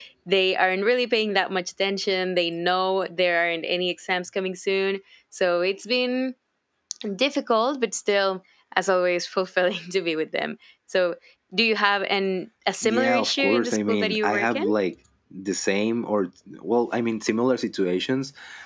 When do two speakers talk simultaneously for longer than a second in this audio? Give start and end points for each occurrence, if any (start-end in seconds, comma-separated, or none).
12.8-14.6